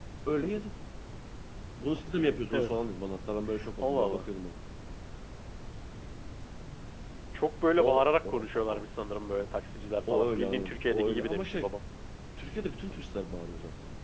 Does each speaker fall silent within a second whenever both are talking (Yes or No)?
No